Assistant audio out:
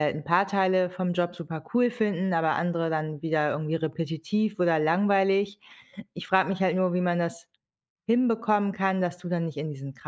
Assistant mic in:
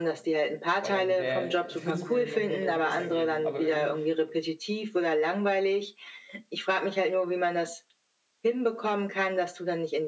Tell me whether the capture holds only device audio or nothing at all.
No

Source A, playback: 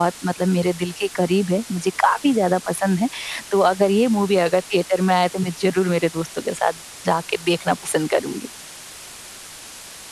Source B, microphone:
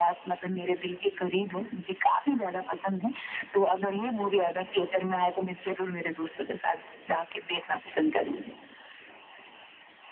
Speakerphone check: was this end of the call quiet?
Yes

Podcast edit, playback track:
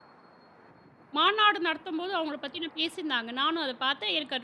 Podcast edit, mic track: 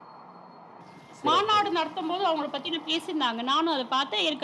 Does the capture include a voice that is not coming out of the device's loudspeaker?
Yes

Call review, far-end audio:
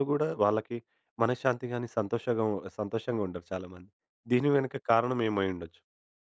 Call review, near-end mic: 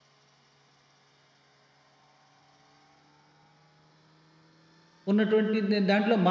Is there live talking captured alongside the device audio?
Yes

